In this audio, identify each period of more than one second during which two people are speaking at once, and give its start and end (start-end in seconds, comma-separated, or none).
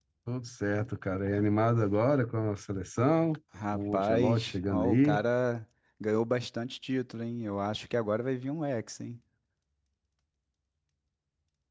3.7-5.2